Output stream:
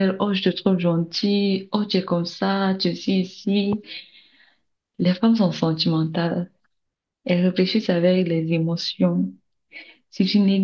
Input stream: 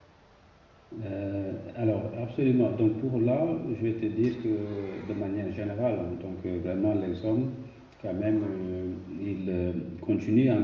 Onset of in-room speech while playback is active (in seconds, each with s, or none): 0.9 s